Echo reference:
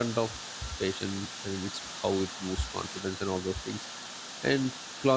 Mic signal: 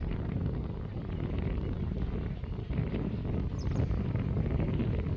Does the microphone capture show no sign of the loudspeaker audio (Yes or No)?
Yes